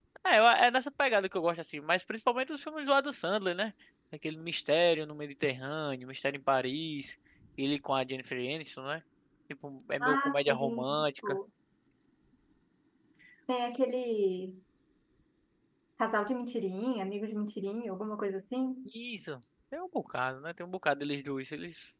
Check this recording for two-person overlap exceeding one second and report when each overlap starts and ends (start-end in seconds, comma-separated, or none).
10.0-11.4